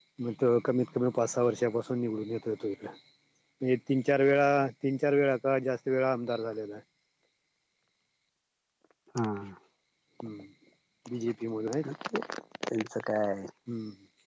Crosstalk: none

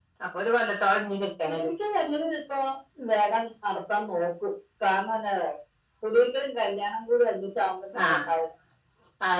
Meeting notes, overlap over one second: none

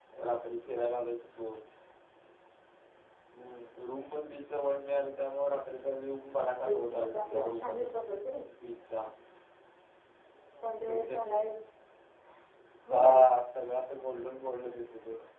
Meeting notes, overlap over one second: present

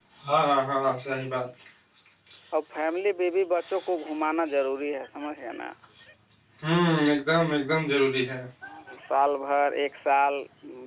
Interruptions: none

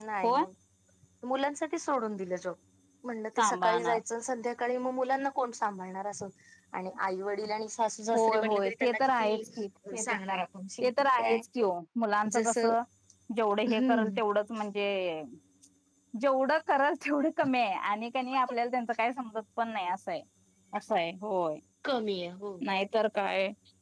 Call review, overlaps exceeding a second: present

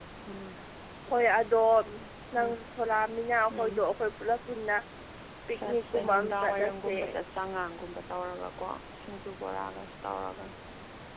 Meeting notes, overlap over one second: present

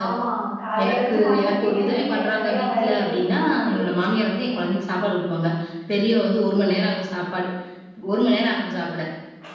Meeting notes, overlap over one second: present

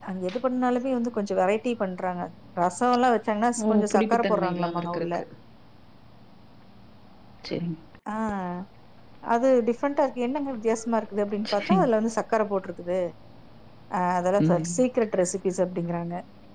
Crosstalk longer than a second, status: present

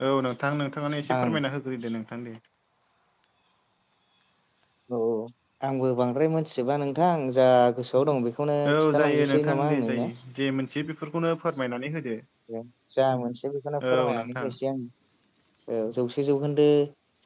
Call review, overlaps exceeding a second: present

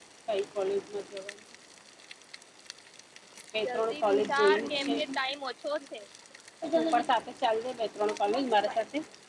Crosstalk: present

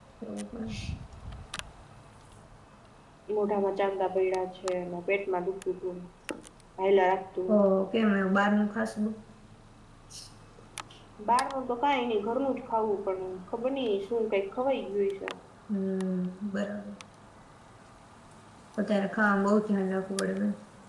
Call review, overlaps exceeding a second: none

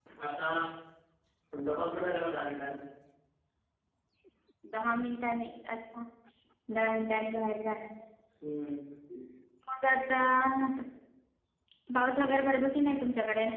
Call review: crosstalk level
none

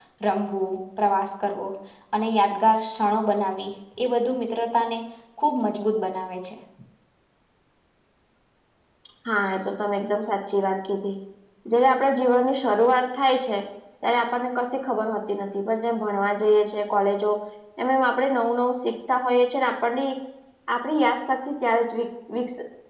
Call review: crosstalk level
none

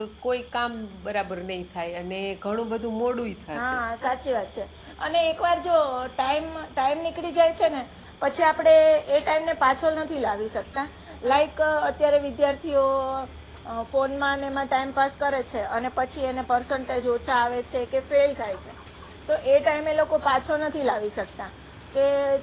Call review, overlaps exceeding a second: none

